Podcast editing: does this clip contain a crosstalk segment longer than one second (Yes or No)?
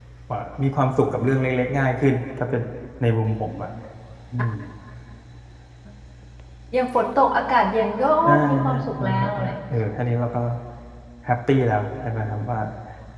Yes